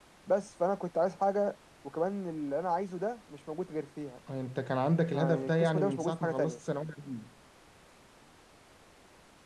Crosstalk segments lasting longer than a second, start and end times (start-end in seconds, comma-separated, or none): 5.1-6.6